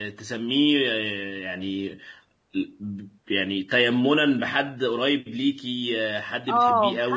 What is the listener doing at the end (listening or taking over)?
taking over